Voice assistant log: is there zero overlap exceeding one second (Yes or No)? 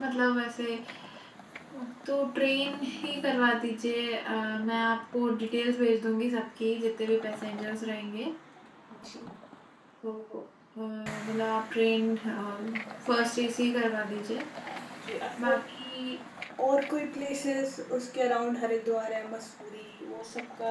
Yes